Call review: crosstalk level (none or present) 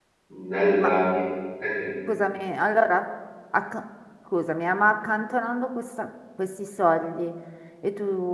none